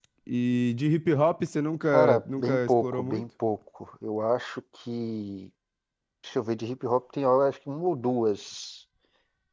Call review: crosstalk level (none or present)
present